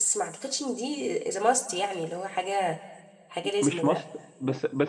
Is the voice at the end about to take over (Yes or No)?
Yes